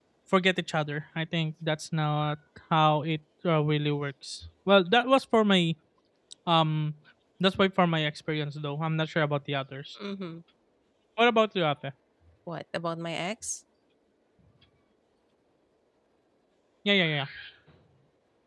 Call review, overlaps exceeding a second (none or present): none